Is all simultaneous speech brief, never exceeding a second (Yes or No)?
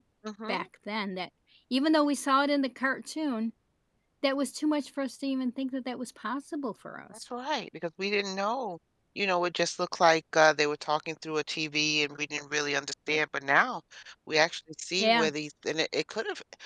Yes